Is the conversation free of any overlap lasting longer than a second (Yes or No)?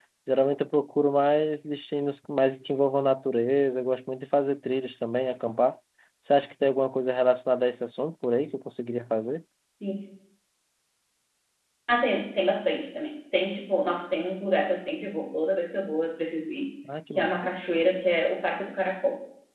Yes